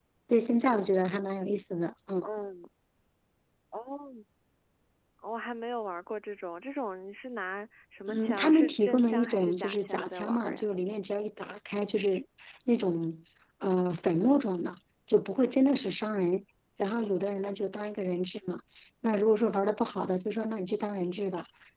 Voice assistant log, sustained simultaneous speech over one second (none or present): present